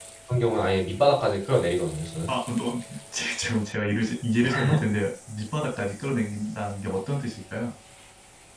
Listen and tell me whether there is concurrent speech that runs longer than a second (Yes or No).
No